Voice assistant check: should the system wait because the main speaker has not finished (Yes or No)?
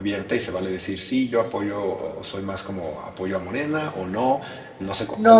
No